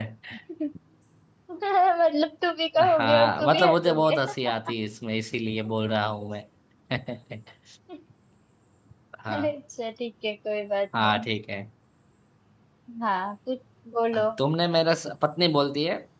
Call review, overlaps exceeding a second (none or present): present